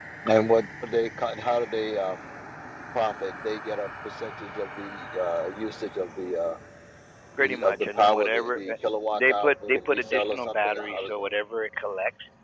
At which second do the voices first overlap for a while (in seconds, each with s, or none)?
7.4 s